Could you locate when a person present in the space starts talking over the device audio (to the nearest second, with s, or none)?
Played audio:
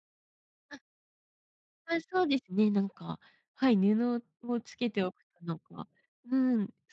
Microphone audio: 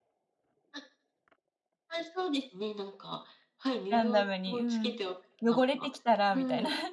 4 s